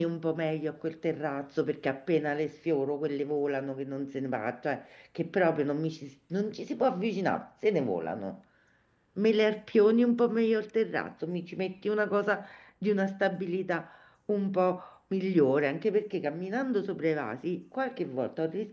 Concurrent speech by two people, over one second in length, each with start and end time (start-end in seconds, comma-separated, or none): none